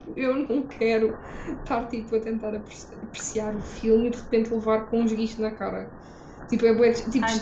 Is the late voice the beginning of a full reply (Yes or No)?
Yes